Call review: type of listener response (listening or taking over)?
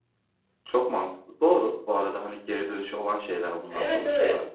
taking over